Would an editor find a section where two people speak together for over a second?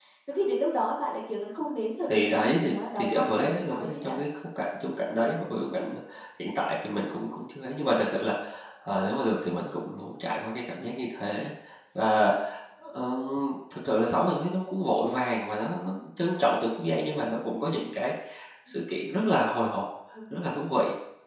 Yes, from 2.1 s

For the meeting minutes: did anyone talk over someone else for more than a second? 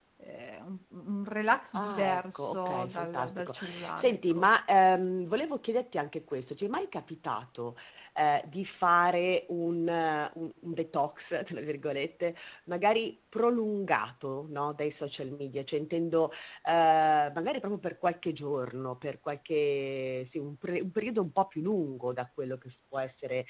Yes, from 1.7 s

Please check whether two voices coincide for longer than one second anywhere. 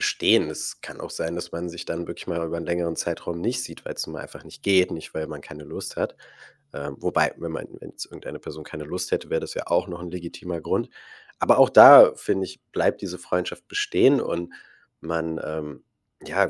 No

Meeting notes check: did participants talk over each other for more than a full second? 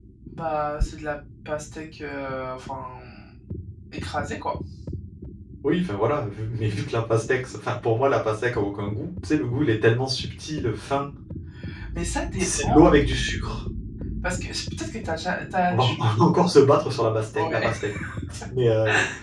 No

